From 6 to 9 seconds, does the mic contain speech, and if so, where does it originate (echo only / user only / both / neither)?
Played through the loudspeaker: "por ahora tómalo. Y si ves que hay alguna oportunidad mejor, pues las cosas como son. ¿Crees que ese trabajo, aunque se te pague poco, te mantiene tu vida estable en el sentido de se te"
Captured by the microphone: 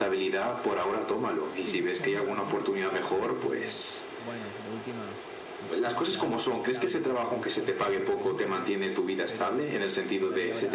both